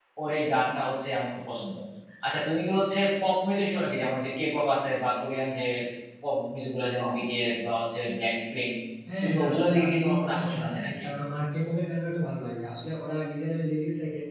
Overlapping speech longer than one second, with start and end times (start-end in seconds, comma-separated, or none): 9.2-11.0